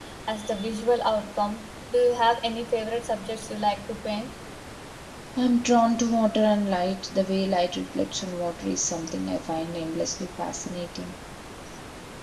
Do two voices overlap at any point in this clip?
No

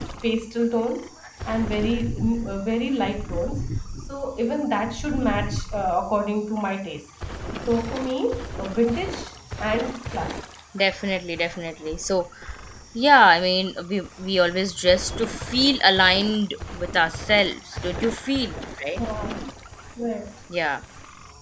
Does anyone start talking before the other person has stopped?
No

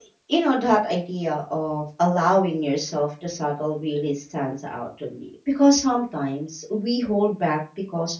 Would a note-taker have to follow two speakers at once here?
No

